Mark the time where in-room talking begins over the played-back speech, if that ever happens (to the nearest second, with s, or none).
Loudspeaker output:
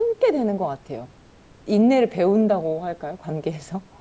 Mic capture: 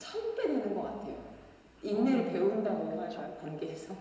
2 s